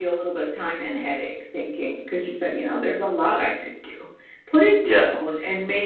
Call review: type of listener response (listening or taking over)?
listening